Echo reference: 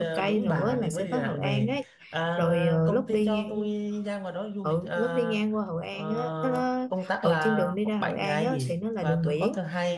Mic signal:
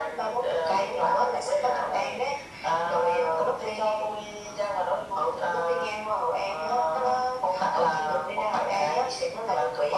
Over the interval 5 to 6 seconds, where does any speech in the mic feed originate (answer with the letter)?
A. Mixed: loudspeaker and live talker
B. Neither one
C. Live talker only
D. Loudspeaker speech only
D